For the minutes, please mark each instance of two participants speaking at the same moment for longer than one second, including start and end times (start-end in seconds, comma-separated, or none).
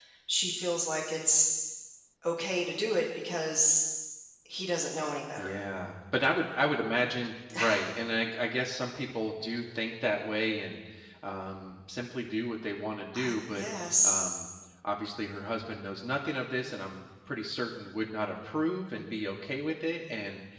none